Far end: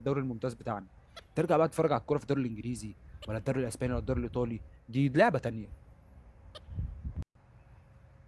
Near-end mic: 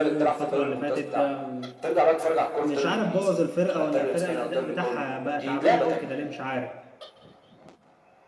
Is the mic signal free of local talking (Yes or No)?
No